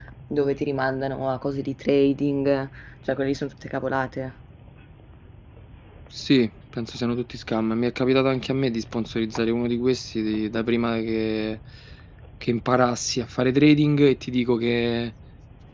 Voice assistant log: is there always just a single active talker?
Yes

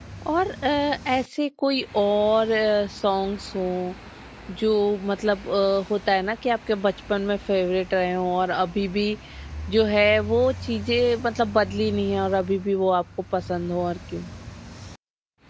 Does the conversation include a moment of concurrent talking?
No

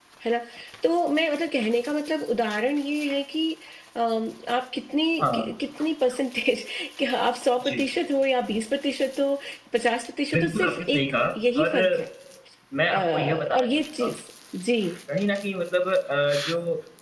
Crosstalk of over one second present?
Yes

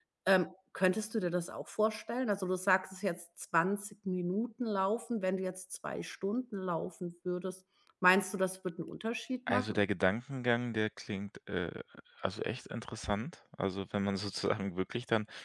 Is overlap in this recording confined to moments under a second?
Yes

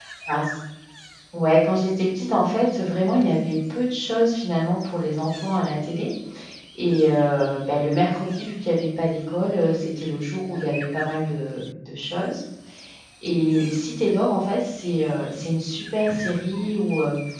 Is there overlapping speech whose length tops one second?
No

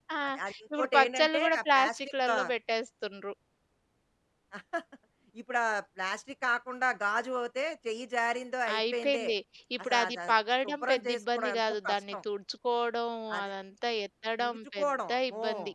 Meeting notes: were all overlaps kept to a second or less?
No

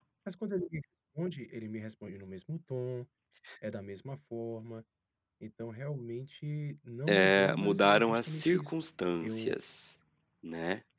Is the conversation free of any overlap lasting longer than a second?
No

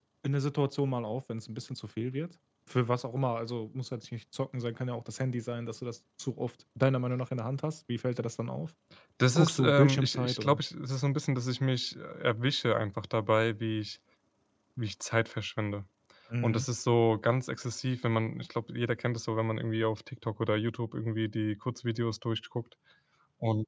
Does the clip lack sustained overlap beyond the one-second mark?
No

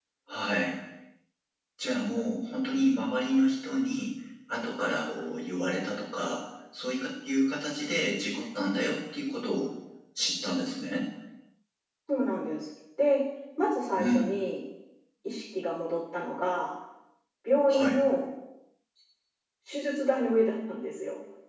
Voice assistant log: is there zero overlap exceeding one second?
Yes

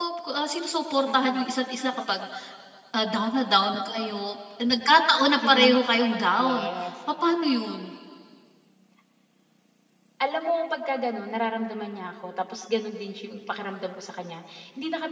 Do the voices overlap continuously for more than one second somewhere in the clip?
No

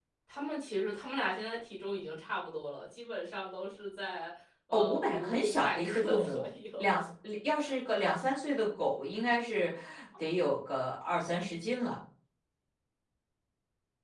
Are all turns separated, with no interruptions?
No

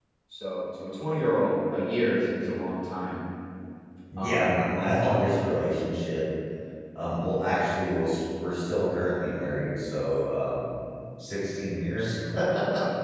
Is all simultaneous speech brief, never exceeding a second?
Yes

